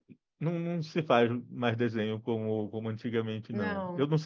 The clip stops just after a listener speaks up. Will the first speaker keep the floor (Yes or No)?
Yes